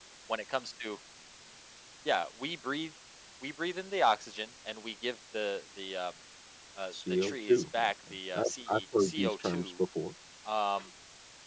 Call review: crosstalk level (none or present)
present